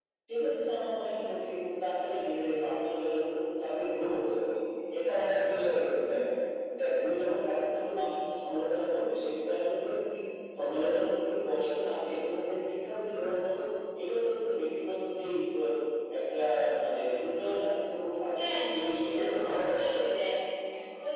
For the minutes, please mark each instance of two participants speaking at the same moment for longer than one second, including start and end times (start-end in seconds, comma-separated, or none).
18.4-19.9